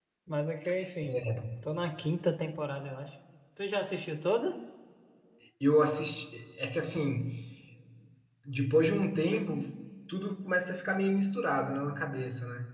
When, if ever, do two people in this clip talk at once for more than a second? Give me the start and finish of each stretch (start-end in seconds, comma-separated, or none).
none